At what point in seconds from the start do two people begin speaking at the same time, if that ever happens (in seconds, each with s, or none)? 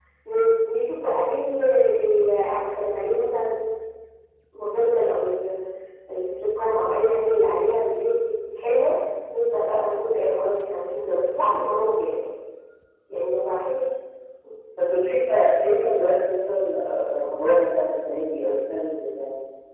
none